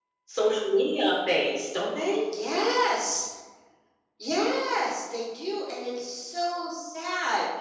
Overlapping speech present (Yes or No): No